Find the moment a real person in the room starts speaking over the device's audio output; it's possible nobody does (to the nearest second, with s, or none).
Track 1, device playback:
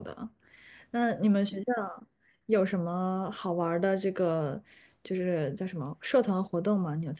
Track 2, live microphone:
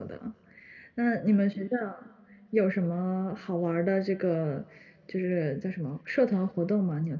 none